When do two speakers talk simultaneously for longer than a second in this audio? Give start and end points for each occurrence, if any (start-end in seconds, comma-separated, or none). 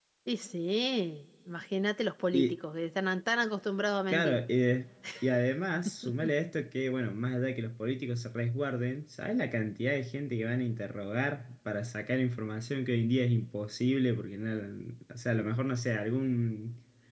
none